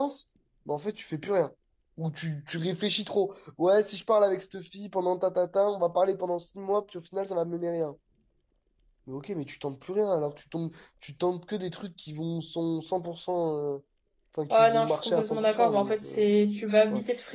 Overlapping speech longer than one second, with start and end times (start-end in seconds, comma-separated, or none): 14.5-16.3